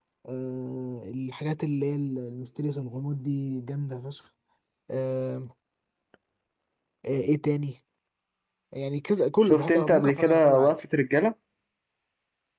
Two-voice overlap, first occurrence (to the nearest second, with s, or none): 9 s